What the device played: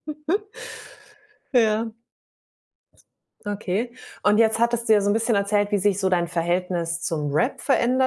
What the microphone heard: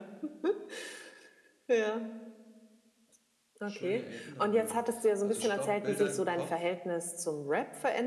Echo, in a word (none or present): present